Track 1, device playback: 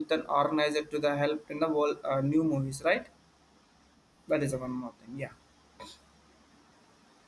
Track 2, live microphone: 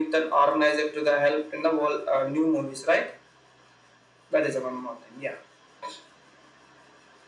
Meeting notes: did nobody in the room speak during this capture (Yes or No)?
Yes